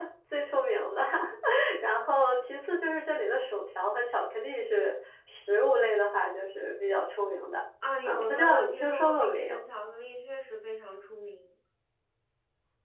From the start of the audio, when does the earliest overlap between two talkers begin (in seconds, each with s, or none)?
8.0 s